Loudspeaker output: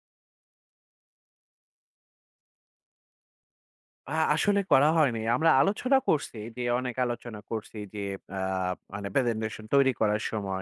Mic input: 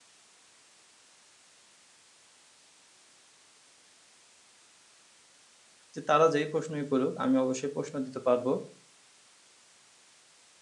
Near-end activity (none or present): present